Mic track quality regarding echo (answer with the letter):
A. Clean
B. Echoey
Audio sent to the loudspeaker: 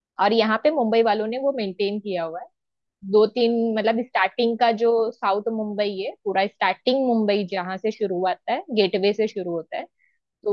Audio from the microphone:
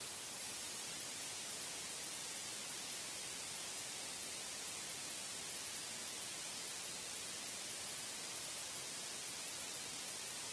A